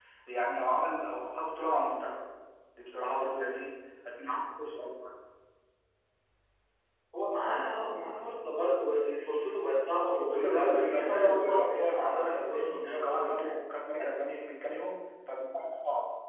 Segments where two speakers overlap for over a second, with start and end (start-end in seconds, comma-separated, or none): 10.3-13.6